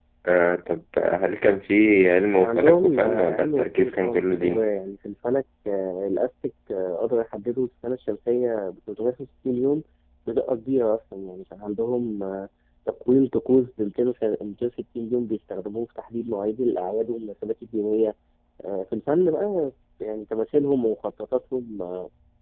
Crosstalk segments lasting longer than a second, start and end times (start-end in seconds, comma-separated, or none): 2.4-4.7